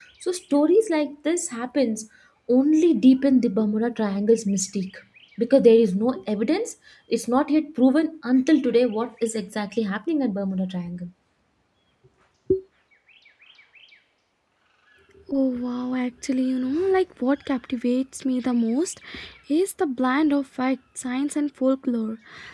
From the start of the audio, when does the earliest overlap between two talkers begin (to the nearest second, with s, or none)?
none